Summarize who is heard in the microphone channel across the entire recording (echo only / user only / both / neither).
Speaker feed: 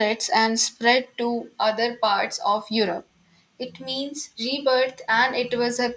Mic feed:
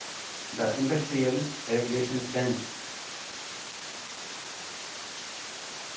user only